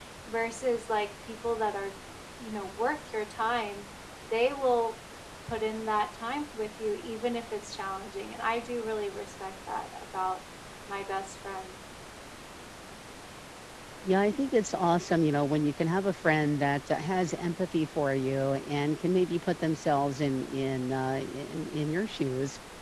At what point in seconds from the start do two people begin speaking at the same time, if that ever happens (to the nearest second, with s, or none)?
none